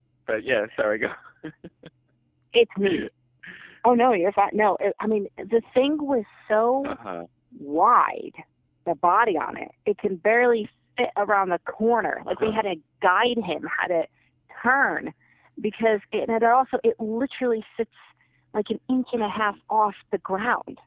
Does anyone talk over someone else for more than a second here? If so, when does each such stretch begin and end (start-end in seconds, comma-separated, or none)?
none